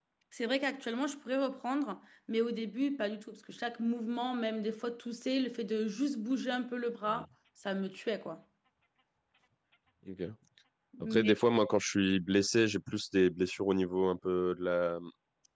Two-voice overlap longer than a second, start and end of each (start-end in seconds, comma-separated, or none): none